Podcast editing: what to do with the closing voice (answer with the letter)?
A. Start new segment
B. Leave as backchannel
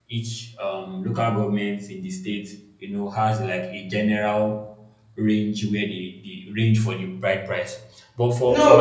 A